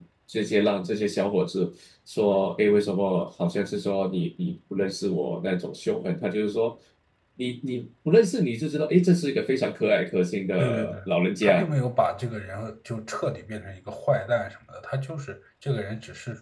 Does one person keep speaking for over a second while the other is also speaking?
No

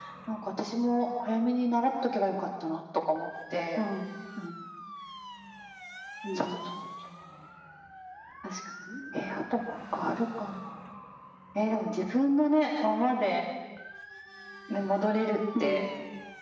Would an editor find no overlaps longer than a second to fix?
Yes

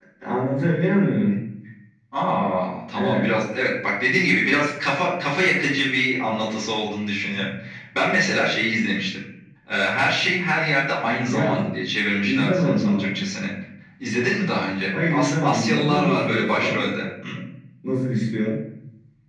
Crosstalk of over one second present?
Yes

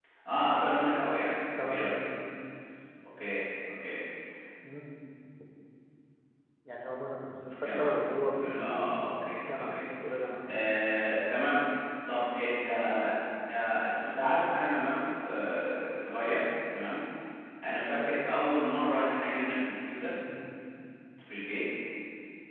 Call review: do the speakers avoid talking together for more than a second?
No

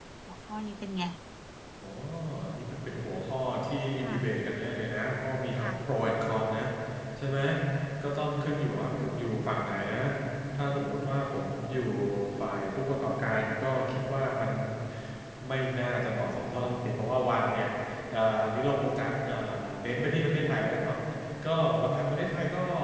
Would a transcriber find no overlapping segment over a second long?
Yes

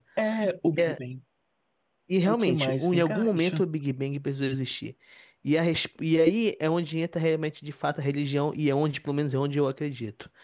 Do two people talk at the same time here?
Yes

